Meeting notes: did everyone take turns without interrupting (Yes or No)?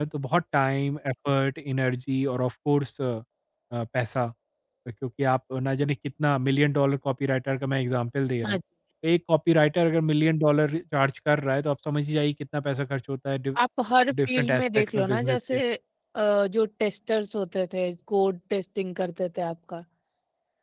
No